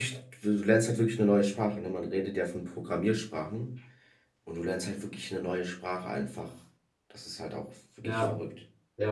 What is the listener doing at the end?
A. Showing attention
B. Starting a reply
B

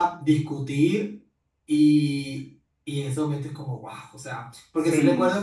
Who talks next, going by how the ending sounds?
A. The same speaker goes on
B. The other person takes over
A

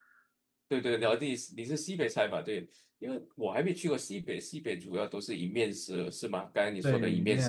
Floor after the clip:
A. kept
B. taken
B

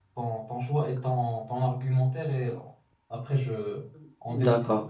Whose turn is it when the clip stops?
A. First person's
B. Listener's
B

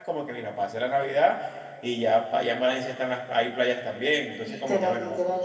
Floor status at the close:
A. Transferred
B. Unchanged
A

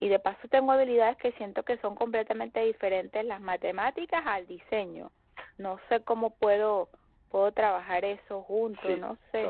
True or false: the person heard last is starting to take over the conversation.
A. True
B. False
A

